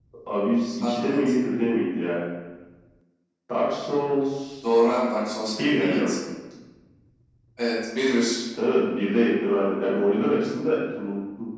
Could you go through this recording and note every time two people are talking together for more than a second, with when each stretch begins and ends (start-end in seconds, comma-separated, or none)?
none